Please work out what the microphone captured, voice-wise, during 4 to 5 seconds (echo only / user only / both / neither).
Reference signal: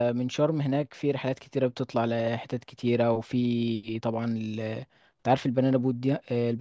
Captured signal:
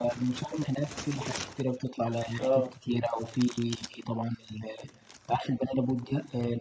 echo only